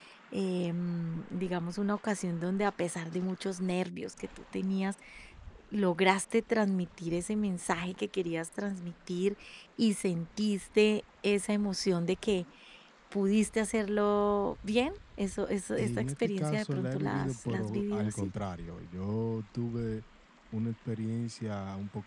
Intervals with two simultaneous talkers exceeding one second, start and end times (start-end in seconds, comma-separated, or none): 15.8-18.3